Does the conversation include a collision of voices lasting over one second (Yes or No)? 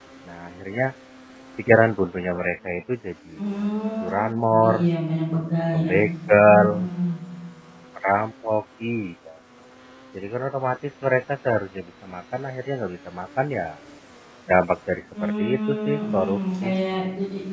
Yes